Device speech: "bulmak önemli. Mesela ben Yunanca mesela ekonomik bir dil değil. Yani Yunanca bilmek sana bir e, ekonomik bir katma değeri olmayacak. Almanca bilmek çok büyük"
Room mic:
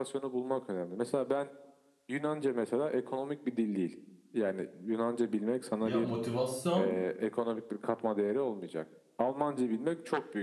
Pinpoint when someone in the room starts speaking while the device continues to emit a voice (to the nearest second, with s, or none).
6 s